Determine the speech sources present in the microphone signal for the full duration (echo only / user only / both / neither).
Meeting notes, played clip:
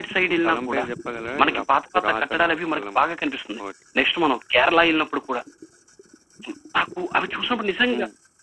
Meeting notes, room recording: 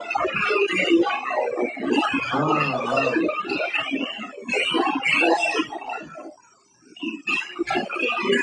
both